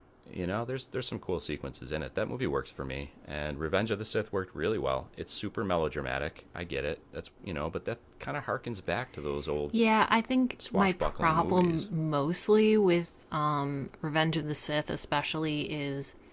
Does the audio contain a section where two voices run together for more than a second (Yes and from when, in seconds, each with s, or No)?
Yes, from 10.7 s